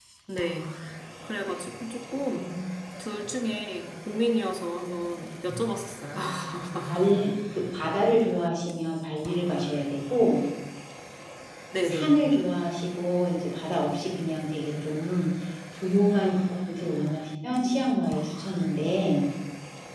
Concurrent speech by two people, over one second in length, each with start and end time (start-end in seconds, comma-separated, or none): none